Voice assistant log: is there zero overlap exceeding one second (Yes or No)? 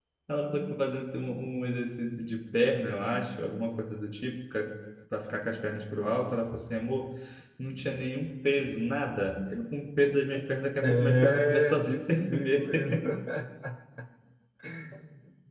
No